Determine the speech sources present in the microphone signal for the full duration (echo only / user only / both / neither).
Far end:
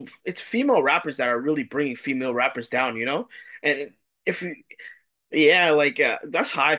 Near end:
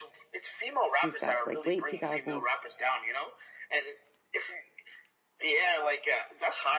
both